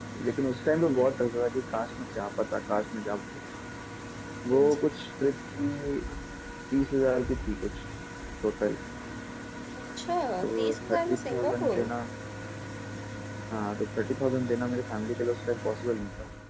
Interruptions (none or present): present